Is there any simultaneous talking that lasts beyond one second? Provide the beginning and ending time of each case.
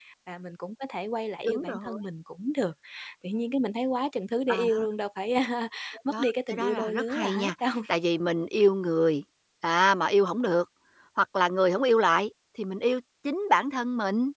6.1-7.8

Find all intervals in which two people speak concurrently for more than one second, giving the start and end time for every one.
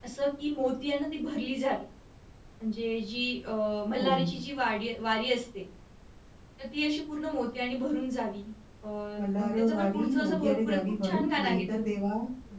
9.4-11.6

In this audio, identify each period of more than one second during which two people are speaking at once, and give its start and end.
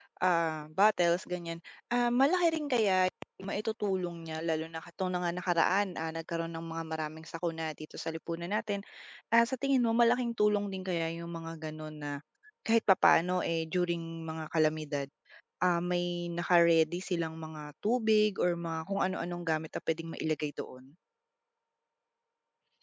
none

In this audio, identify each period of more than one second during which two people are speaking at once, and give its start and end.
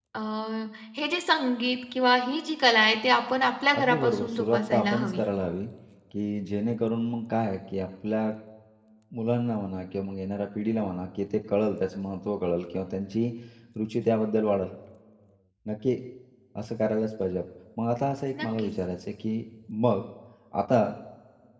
3.8-5.2

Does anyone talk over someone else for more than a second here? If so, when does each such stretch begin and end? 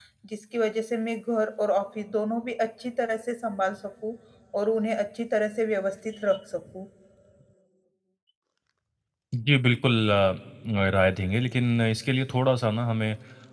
none

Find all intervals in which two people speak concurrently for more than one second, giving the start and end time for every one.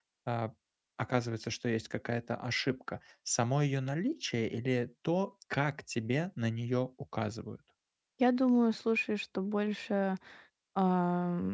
none

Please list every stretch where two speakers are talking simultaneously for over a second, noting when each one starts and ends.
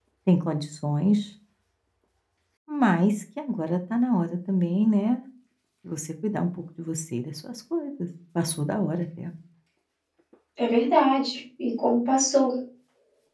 none

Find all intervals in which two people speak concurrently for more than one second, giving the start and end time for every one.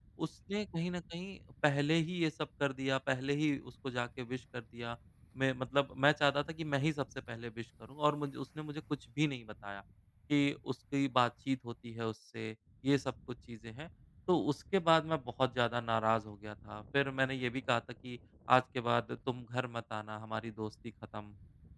none

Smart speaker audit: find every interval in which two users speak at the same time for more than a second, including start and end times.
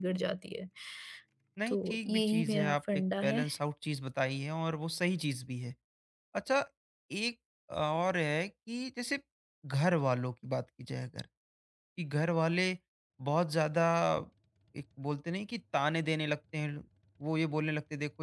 1.7-3.5

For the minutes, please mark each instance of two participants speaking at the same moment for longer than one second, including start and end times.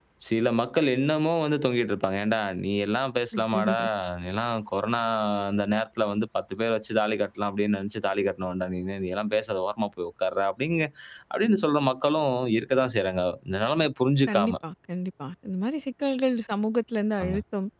none

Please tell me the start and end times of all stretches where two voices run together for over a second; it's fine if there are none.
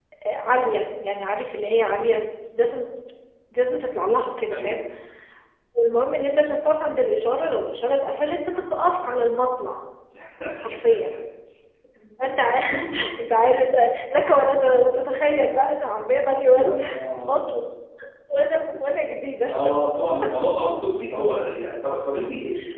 none

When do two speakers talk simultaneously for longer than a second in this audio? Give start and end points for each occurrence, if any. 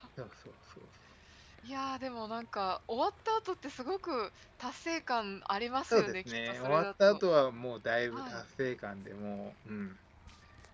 5.9-7.2

